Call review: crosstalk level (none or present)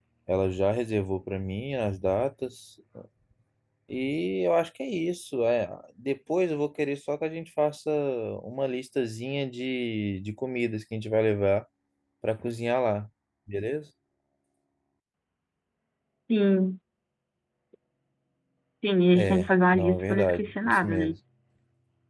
present